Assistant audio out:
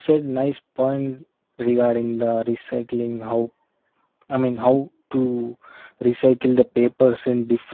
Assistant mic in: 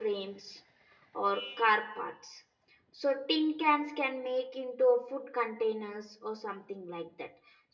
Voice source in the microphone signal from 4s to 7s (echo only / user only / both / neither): user only